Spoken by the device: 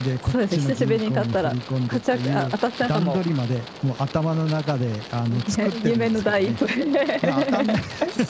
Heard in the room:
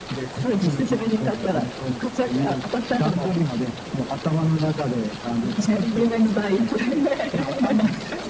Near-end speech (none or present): none